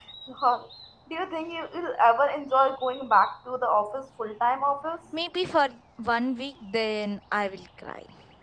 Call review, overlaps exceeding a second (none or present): none